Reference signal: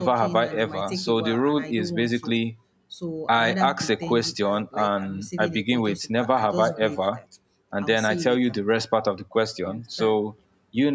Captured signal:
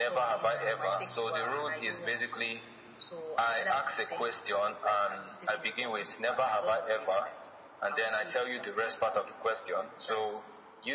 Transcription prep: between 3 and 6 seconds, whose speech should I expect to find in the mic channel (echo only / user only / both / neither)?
echo only